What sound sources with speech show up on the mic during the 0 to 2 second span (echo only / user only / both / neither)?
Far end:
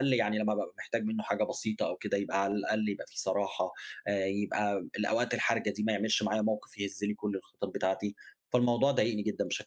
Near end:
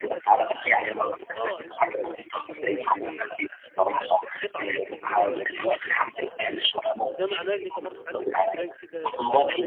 both